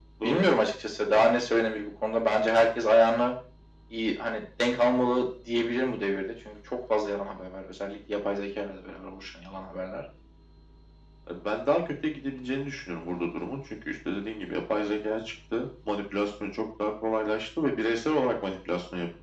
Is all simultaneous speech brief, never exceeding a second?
Yes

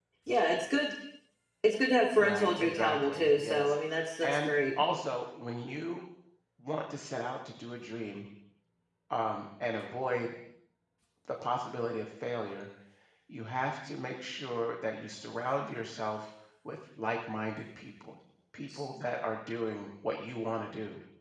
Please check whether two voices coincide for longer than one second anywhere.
Yes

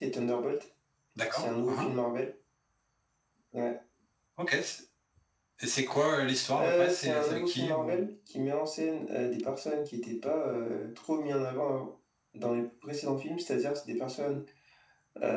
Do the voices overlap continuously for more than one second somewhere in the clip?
Yes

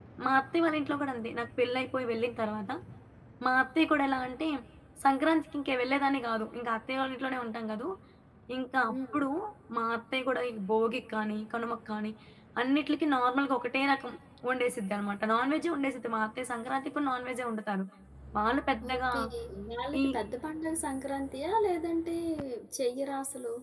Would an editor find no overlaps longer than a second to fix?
Yes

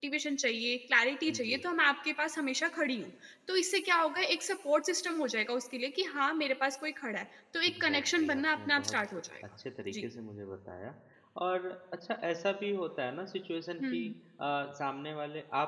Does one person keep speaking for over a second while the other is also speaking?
Yes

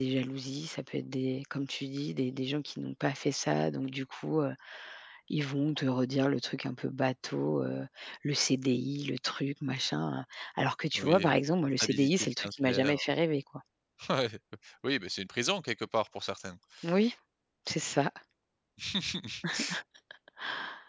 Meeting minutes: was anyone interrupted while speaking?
Yes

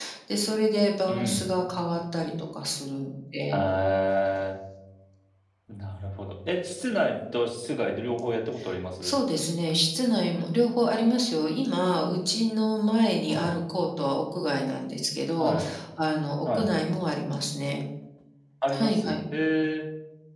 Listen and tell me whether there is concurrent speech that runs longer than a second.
No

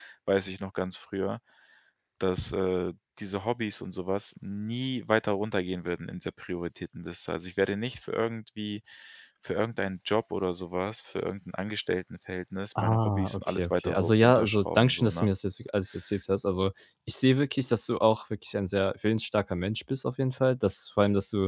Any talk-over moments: Yes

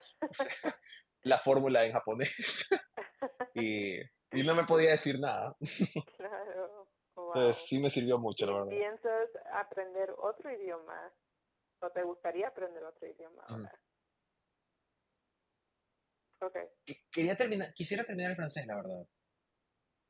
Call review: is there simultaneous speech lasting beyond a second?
No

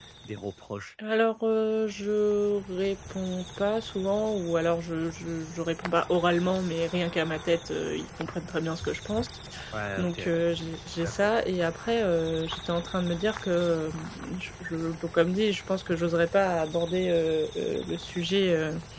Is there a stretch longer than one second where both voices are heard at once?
Yes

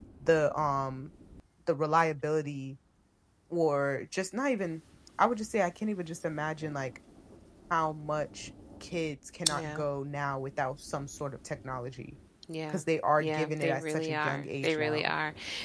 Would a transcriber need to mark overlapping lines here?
Yes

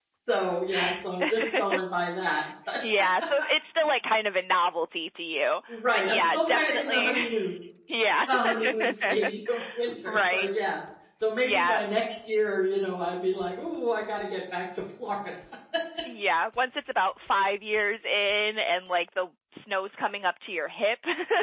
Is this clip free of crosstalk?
No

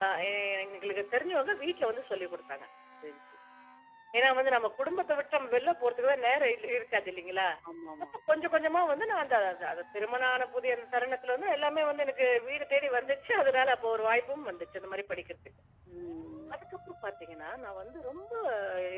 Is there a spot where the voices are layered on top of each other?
No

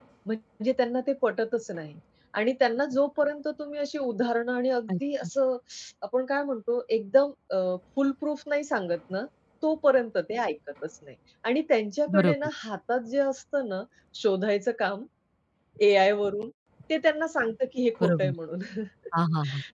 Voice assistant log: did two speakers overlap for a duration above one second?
No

